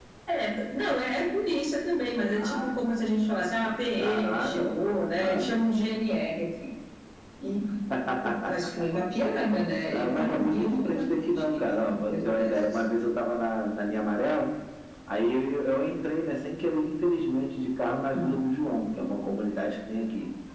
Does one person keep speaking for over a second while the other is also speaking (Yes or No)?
Yes